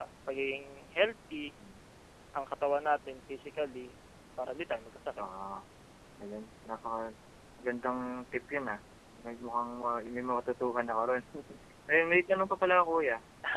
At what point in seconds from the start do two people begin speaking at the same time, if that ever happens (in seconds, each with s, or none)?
none